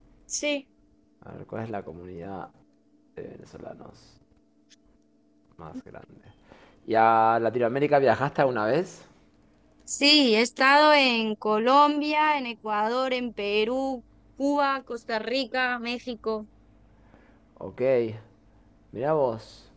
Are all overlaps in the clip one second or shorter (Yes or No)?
Yes